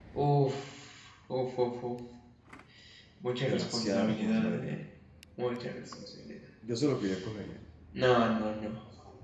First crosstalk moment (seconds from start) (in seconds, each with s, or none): 3.5 s